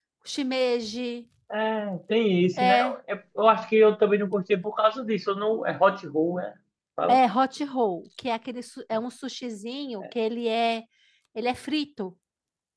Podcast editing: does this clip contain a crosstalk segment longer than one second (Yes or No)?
No